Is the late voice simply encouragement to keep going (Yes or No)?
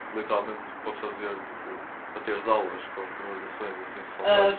No